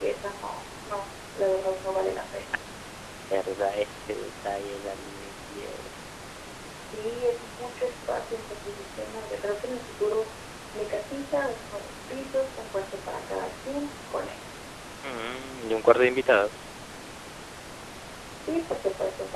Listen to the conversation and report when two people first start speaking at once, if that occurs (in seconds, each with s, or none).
none